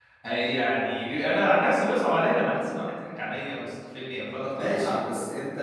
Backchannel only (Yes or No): No